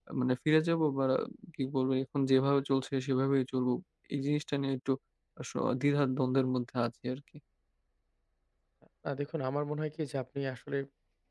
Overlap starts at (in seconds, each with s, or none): none